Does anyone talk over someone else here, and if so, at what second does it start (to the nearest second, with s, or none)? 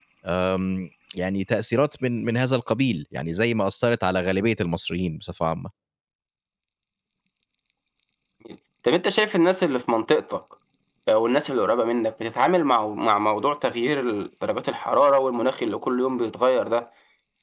none